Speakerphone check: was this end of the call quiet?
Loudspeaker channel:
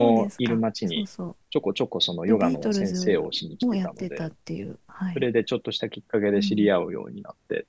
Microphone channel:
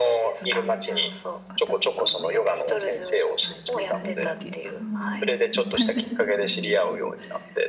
No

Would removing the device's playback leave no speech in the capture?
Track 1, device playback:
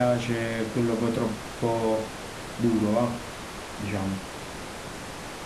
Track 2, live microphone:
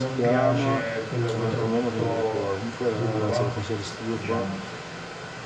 No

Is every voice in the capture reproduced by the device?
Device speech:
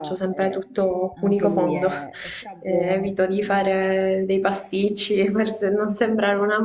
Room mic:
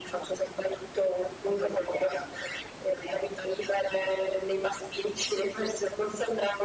Yes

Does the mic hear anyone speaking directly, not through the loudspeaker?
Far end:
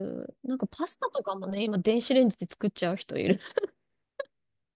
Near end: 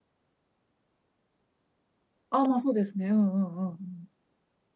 Yes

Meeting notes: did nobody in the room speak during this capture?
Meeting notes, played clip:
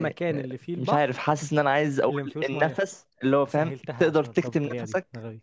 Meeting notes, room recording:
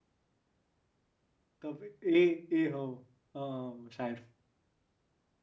No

